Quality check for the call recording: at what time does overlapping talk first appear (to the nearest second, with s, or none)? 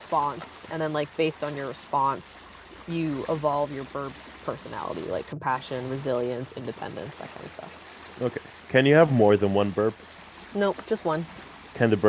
none